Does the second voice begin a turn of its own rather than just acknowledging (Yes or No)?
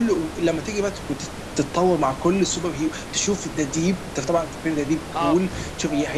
No